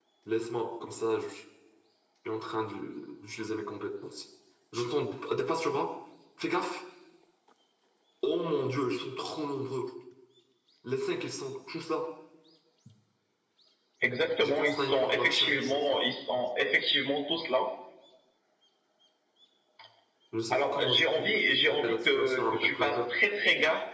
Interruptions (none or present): present